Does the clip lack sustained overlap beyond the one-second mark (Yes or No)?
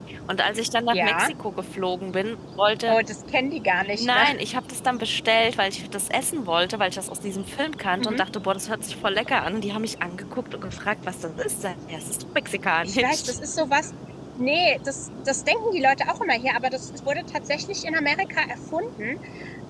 Yes